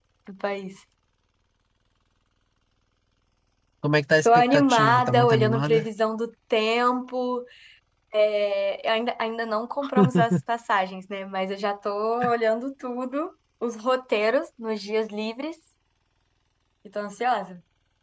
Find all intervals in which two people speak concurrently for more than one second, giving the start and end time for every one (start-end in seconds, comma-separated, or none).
4.2-5.8